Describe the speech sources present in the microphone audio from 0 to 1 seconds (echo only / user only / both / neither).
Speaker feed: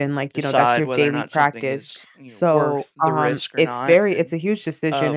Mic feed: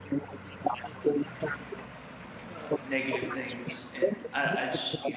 echo only